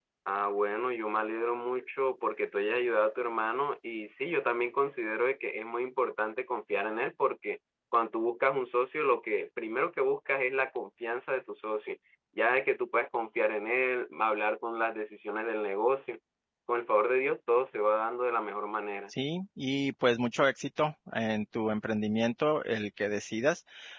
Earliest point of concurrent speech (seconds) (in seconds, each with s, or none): none